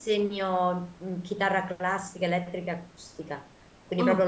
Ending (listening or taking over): listening